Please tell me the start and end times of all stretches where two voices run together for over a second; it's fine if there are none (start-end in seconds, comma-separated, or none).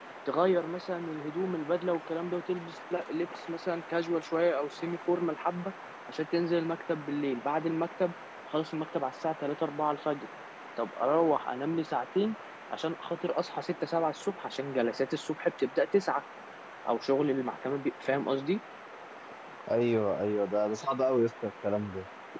none